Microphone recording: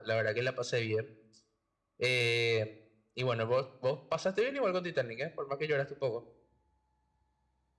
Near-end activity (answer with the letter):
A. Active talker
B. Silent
B